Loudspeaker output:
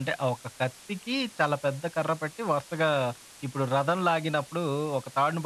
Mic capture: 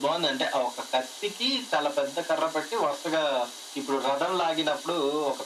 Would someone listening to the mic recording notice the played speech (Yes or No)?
Yes